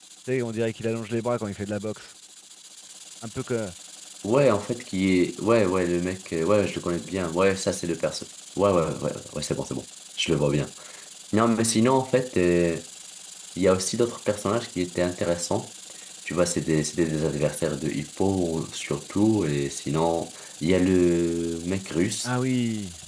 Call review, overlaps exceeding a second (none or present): none